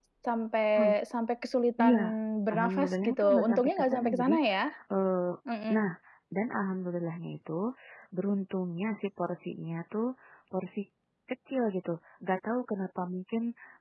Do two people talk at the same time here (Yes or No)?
Yes